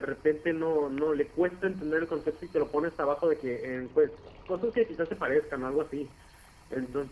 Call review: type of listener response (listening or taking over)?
listening